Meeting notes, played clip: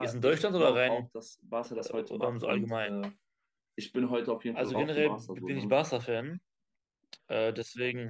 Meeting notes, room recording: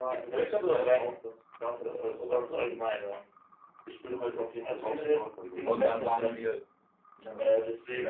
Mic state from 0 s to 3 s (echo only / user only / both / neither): echo only